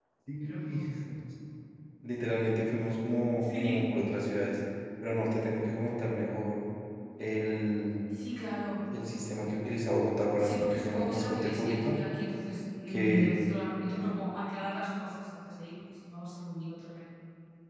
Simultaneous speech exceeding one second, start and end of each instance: 10.4-12.0

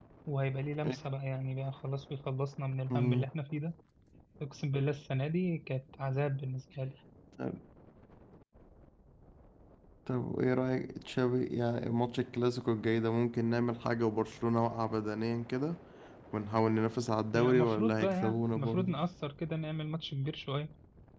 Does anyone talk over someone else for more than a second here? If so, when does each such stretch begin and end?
17.3-18.9

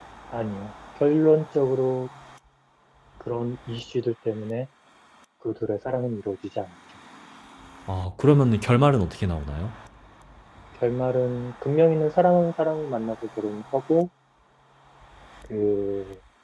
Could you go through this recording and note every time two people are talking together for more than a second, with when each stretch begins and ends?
none

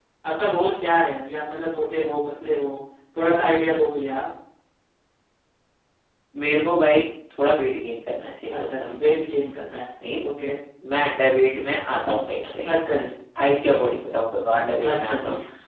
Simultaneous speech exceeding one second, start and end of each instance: none

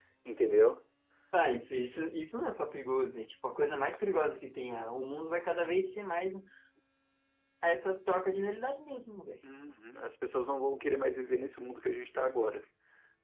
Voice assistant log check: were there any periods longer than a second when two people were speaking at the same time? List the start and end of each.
none

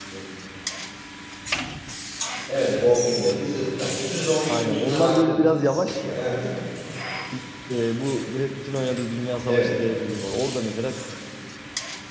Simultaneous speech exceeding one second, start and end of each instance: 4.5-6.2

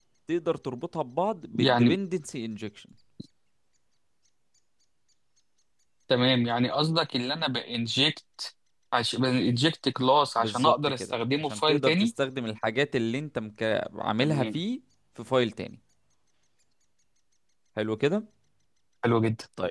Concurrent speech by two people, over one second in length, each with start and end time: 10.4-12.1

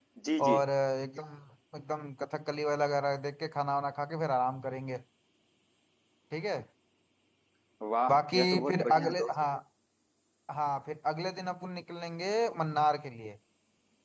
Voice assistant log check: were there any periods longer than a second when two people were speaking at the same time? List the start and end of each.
8.1-9.3

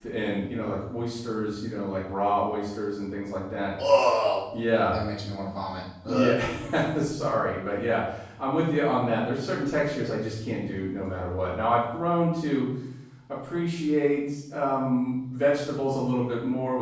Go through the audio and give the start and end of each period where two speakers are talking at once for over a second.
none

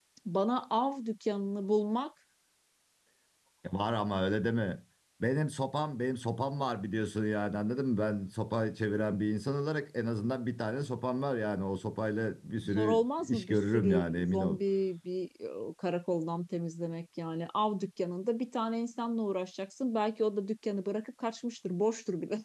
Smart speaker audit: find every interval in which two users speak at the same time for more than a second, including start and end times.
12.6-14.6

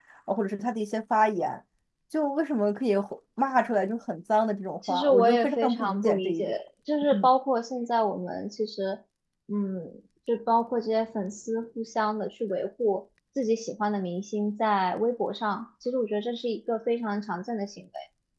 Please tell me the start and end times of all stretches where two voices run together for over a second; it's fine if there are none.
4.9-6.6

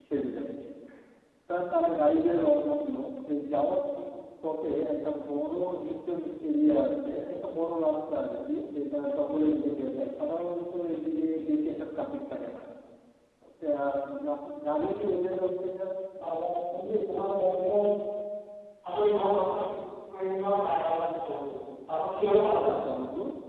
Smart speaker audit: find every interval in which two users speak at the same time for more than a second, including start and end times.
none

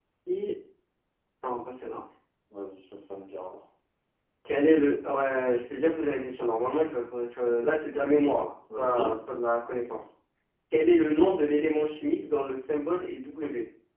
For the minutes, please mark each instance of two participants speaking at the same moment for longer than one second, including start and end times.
none

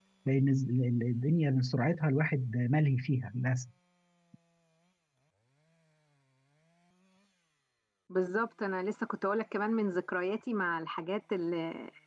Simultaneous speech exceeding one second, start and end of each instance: none

